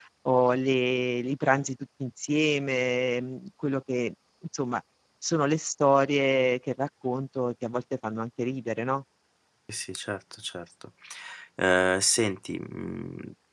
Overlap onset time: none

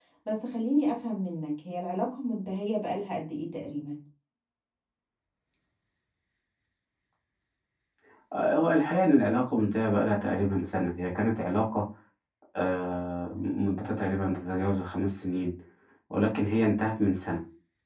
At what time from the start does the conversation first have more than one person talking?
none

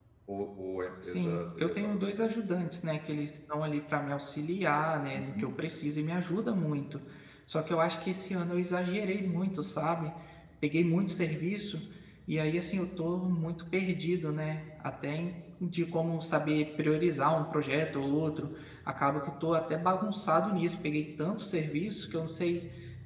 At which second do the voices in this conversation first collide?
1.0 s

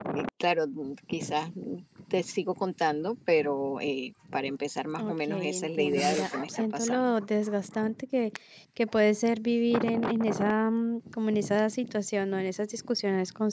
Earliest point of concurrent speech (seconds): 5.0 s

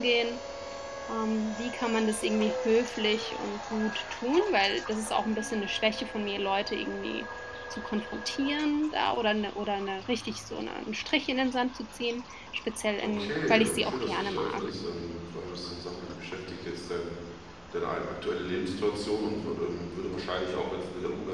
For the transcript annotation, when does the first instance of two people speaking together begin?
13.0 s

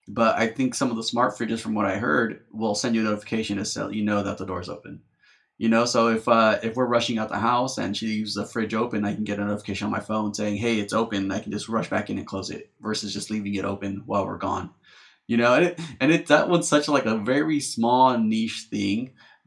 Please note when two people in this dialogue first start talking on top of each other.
none

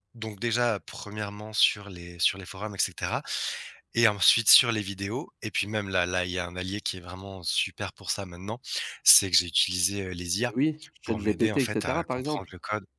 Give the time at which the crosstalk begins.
11.1 s

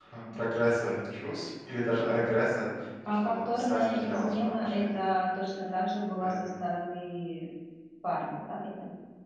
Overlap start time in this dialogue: 3.1 s

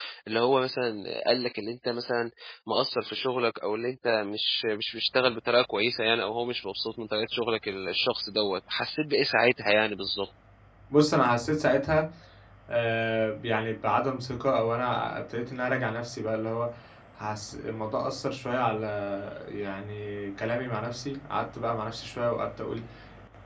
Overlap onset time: none

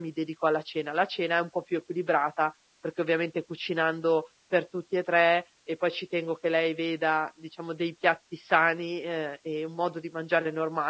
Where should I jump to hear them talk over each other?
none

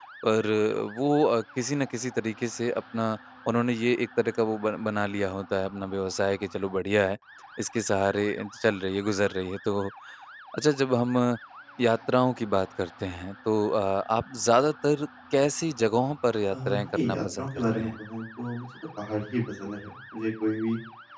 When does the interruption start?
16.5 s

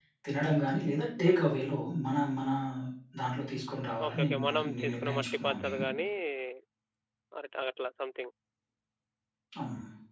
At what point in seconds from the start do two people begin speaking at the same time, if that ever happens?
4.1 s

